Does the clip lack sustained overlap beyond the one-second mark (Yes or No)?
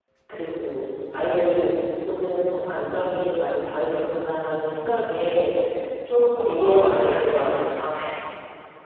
No